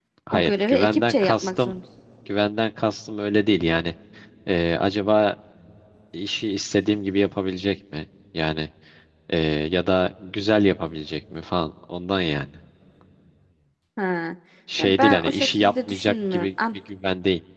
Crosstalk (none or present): present